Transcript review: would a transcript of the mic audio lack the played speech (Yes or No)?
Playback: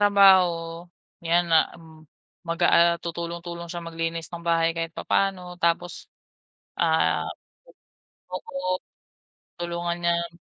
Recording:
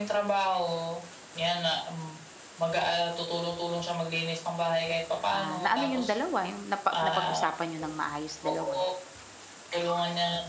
No